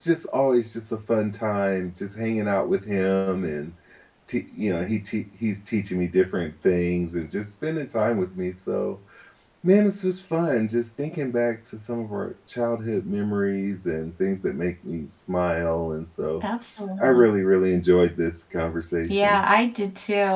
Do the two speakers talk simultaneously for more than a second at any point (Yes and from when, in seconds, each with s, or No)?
No